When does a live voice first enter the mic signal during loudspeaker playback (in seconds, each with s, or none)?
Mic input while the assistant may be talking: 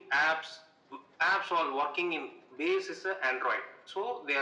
none